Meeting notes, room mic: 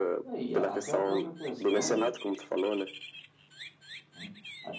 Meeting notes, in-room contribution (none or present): present